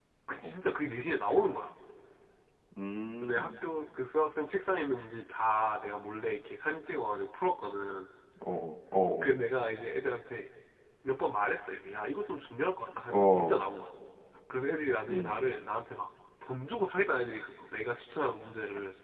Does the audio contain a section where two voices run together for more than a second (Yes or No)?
No